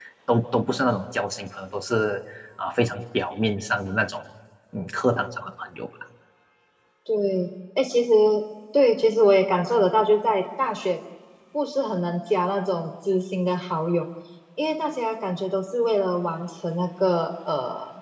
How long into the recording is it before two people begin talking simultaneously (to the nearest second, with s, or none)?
none